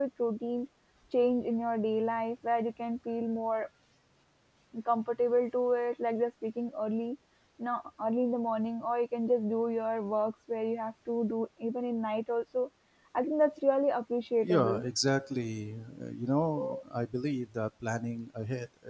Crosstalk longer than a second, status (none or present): none